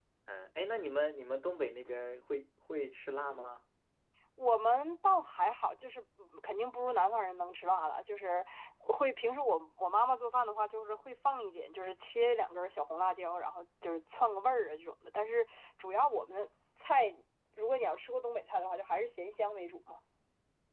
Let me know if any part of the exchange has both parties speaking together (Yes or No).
No